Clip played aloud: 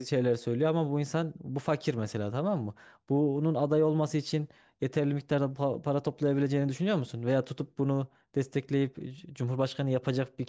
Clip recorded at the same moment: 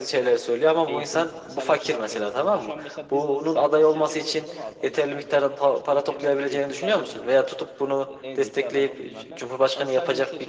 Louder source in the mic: echo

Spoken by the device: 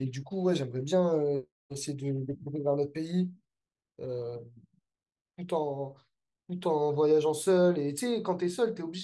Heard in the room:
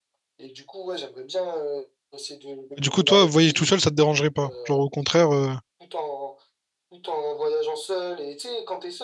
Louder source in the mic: user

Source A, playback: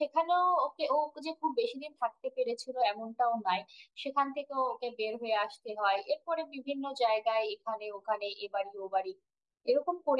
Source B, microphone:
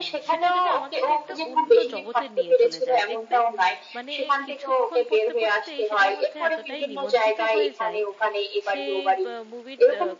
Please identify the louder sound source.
echo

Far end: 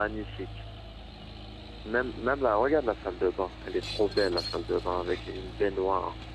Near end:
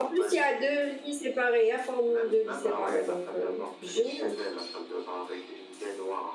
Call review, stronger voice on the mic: user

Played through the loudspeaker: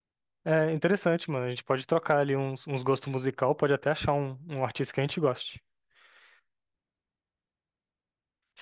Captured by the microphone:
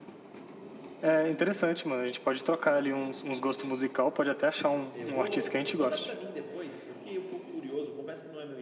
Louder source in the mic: echo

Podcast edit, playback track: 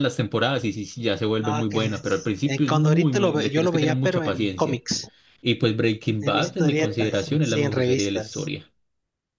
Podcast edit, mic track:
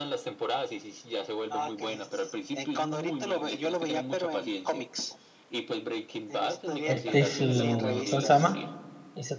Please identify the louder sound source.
user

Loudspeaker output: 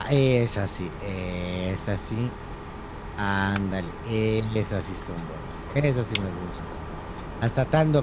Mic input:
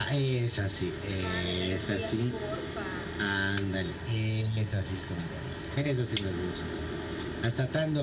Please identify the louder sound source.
echo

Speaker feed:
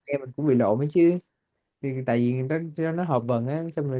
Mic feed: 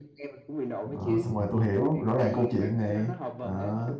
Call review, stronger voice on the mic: user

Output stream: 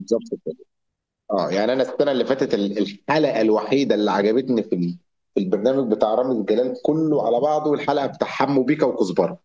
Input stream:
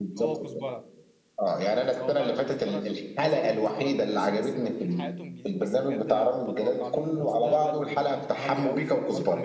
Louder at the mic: echo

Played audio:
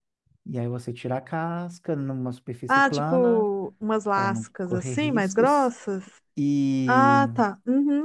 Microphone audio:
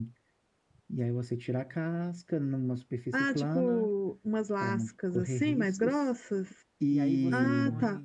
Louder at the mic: echo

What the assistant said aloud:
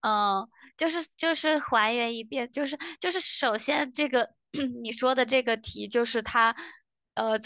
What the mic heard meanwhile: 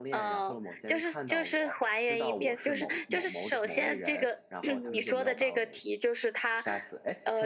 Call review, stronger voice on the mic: echo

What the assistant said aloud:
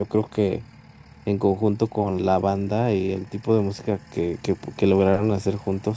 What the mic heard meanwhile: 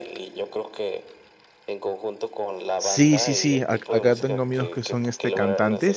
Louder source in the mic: user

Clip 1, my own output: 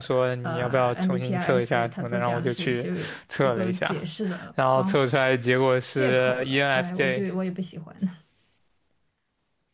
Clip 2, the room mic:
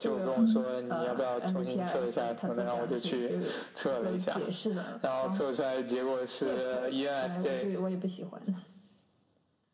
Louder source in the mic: user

